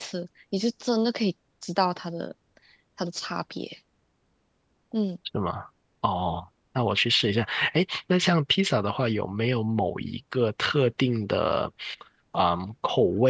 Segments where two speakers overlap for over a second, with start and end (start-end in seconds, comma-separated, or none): none